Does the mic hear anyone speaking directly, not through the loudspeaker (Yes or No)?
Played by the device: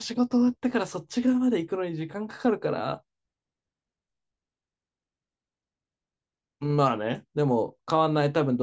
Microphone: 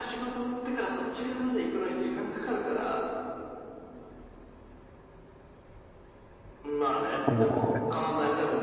Yes